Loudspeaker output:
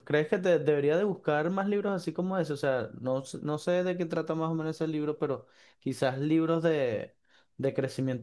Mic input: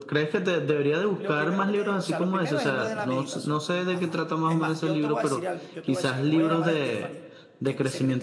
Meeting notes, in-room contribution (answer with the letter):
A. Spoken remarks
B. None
A